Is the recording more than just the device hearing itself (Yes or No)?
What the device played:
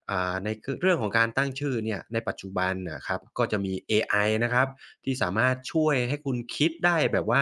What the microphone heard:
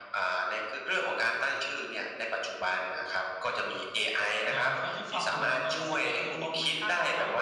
Yes